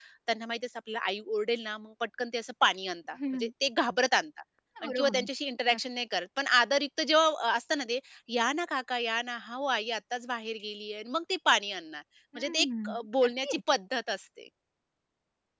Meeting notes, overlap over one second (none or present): present